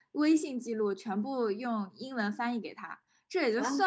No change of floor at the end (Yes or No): Yes